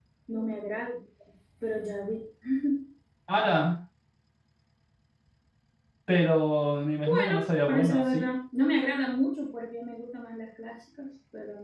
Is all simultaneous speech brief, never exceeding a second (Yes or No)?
No